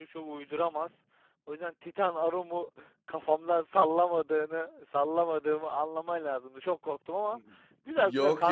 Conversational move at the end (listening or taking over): taking over